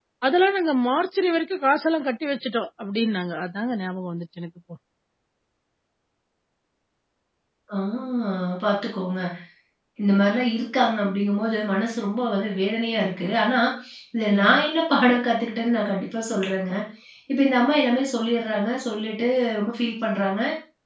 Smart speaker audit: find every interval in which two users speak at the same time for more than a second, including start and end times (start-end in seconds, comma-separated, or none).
none